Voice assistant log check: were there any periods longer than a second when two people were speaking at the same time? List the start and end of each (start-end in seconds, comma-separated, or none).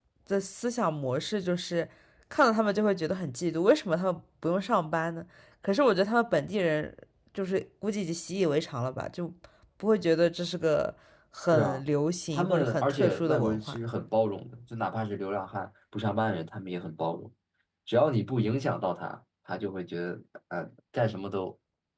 12.3-13.8